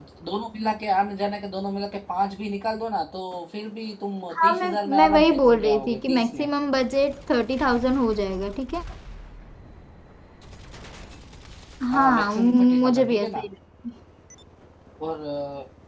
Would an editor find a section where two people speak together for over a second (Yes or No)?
Yes